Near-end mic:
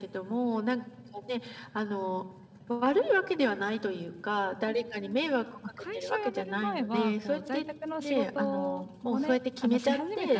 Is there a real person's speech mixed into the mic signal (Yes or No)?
Yes